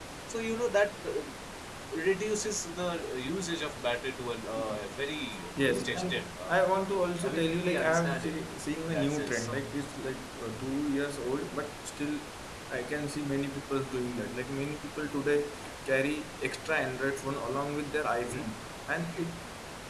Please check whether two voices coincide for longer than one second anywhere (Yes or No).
Yes